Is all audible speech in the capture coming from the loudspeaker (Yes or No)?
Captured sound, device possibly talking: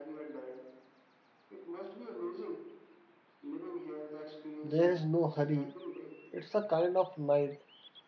No